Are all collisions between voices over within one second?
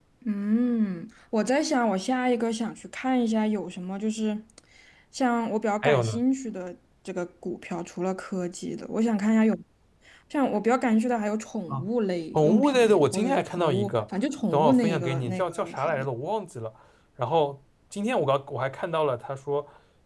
No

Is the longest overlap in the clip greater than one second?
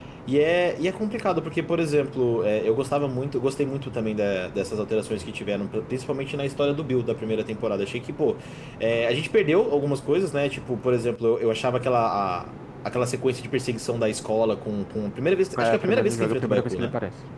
Yes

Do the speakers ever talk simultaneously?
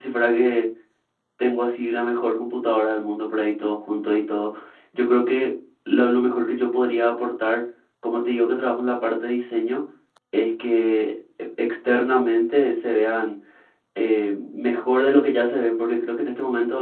No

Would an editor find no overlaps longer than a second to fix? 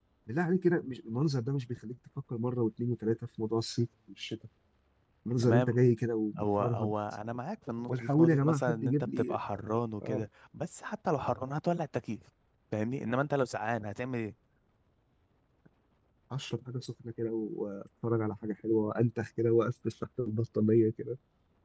No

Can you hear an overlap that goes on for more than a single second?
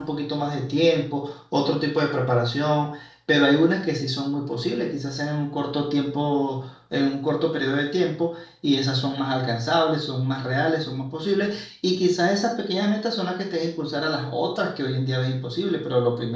No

